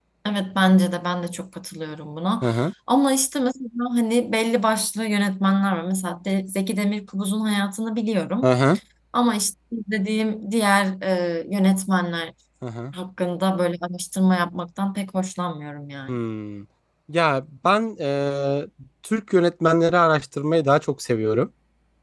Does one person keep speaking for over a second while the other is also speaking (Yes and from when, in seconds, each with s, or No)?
No